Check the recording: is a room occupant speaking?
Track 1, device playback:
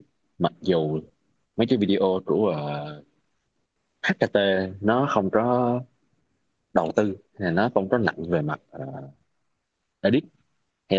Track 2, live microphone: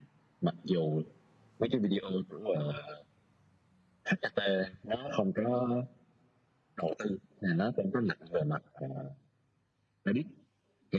No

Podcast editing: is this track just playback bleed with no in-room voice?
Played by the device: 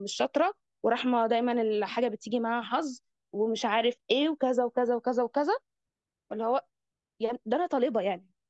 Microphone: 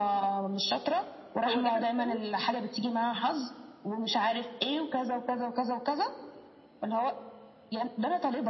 No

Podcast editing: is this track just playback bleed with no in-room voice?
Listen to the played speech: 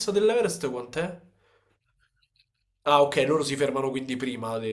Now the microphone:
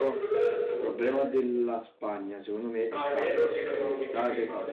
No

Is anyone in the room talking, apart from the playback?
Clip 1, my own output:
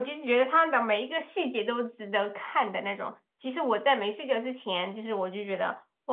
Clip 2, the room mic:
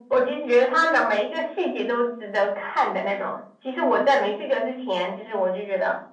No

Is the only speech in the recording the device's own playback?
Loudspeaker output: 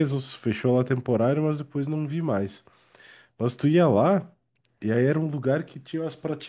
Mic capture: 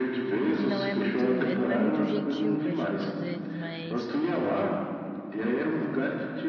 No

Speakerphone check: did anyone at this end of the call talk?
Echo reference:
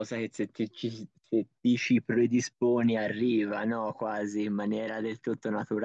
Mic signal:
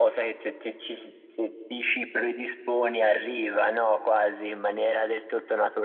No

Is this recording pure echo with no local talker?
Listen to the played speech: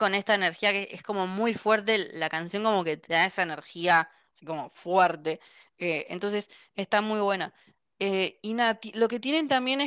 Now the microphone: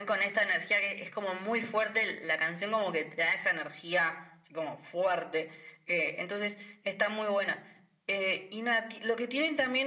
Yes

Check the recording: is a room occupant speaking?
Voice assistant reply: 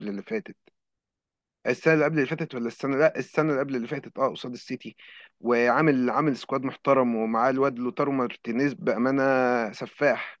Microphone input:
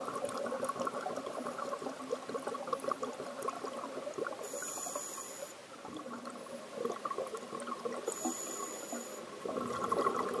No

